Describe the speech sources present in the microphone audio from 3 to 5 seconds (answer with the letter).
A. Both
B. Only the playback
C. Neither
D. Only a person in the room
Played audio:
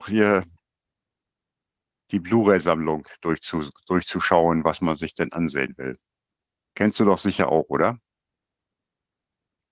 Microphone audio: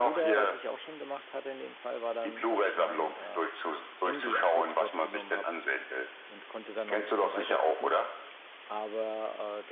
A